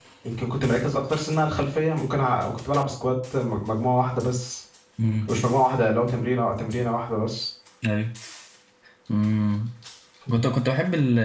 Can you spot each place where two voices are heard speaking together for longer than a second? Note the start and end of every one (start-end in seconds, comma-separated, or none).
none